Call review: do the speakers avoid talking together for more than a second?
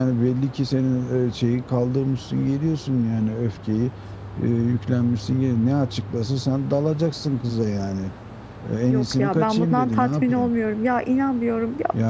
No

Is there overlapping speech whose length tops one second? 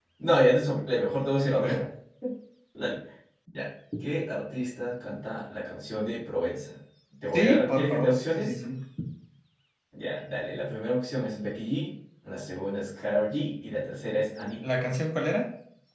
Yes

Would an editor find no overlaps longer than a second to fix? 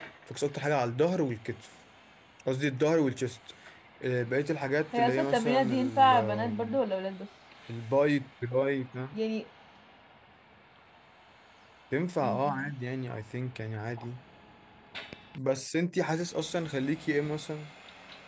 No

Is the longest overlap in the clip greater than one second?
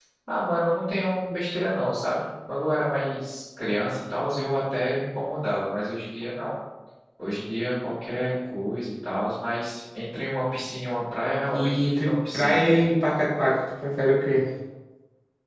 Yes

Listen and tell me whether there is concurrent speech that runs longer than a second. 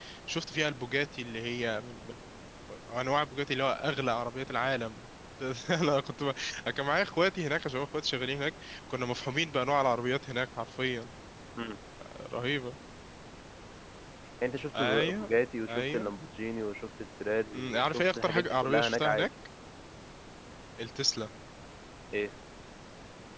Yes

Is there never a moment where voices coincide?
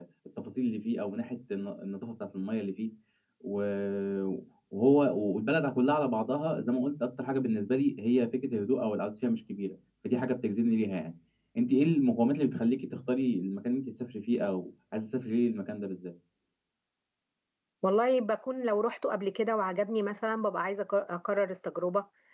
Yes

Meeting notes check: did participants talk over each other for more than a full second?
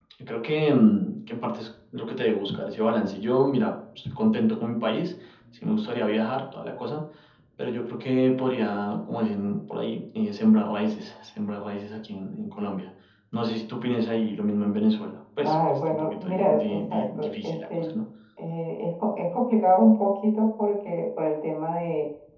Yes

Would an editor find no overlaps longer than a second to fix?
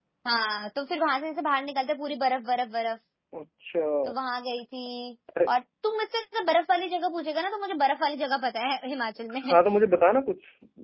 Yes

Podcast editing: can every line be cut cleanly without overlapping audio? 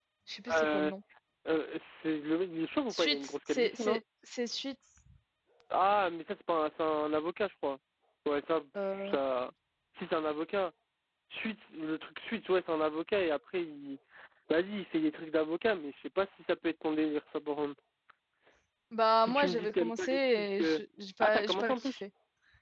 No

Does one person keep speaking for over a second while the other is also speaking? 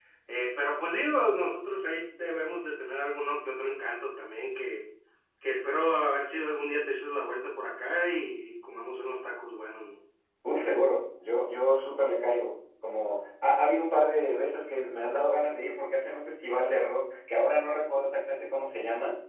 No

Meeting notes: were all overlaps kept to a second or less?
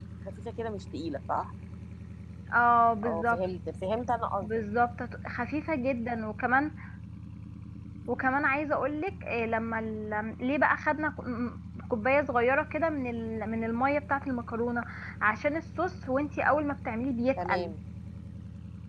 Yes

